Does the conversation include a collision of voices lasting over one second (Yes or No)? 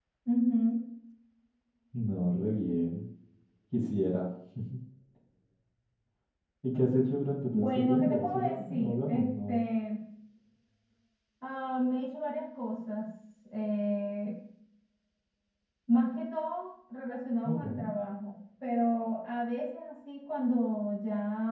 Yes